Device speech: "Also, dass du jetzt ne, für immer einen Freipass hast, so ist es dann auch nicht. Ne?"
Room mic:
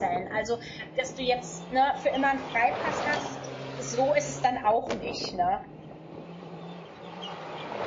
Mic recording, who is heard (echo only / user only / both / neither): echo only